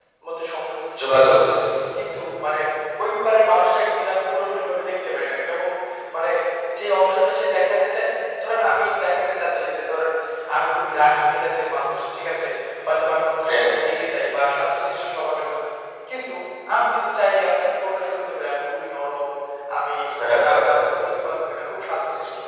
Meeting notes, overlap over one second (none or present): none